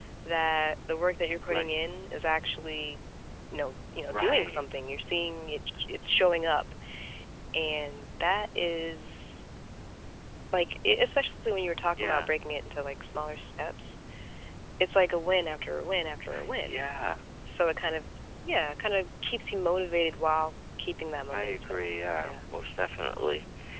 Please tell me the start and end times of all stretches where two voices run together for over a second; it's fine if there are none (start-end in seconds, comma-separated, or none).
none